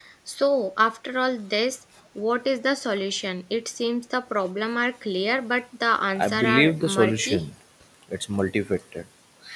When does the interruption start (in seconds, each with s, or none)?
6.1 s